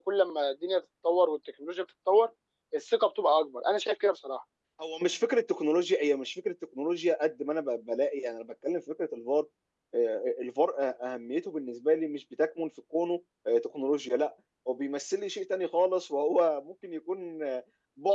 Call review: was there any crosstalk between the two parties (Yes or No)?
No